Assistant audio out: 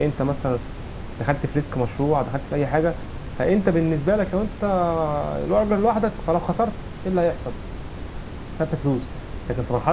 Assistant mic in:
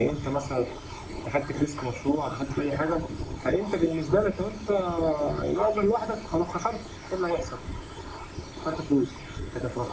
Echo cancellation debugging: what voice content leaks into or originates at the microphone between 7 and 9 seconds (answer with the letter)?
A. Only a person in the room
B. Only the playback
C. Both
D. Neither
B